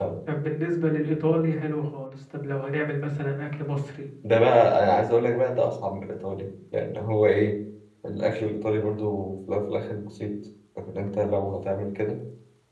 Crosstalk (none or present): none